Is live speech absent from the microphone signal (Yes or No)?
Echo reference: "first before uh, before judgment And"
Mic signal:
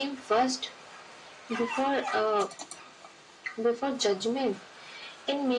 Yes